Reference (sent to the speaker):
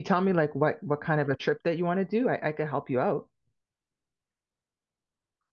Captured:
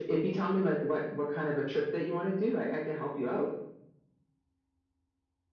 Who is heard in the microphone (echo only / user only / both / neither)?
echo only